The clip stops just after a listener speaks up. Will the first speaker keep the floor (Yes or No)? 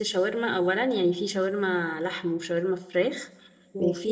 Yes